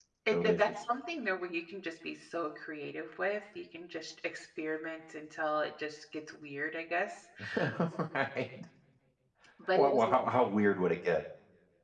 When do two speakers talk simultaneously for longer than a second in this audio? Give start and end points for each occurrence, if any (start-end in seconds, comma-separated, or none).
none